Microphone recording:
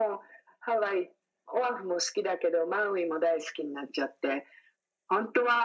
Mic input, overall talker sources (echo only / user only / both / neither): echo only